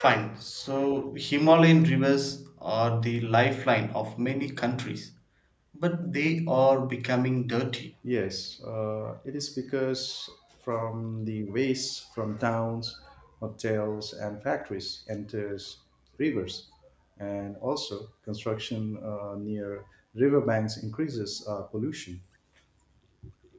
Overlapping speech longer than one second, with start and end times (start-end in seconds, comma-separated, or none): none